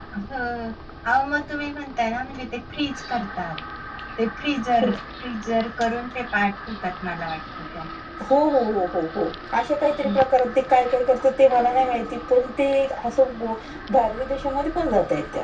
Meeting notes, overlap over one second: none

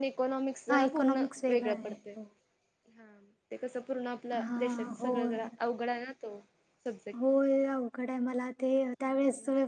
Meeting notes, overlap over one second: present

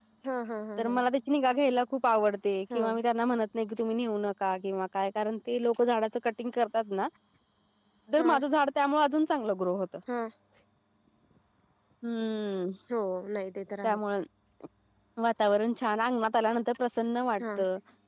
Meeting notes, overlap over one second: none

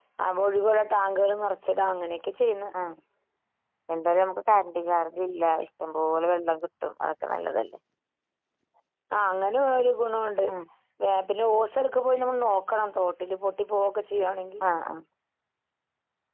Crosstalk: none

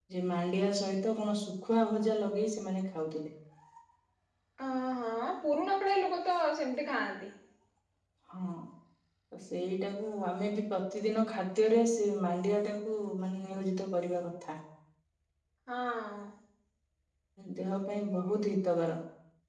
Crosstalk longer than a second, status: none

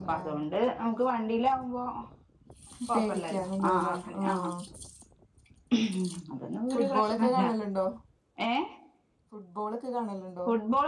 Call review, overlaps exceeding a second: present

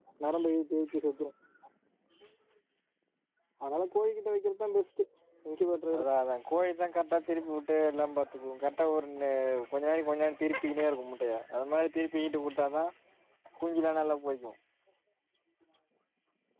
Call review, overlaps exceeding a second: none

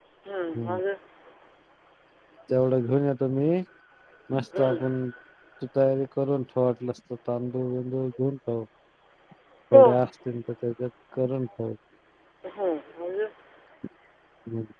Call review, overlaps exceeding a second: none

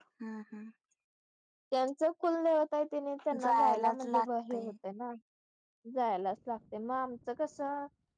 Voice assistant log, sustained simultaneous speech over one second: present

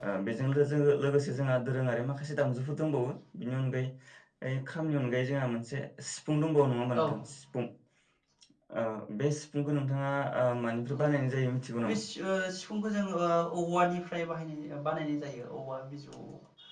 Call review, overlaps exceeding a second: none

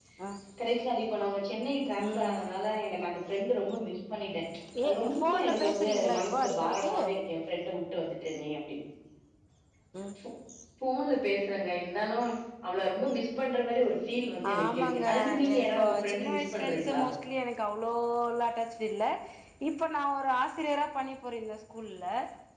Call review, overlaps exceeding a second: present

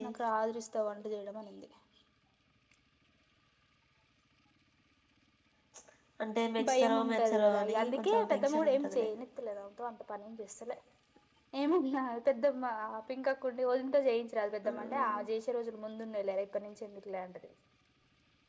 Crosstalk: present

